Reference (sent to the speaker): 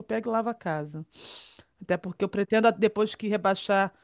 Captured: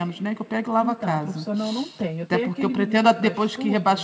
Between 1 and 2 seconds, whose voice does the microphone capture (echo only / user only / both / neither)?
both